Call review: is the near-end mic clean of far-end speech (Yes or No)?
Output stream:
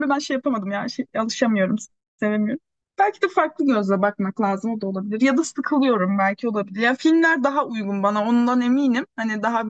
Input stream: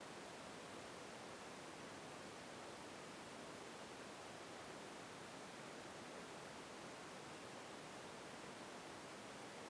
Yes